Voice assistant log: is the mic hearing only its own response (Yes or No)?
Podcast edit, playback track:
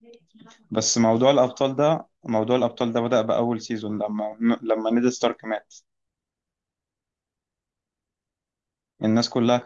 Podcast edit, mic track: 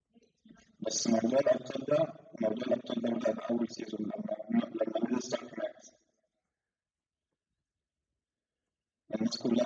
Yes